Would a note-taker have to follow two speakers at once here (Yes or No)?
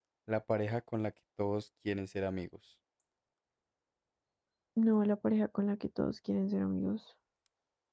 No